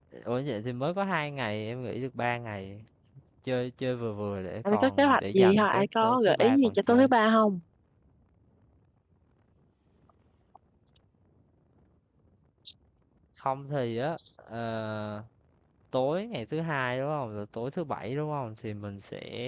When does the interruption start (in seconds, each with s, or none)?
4.7 s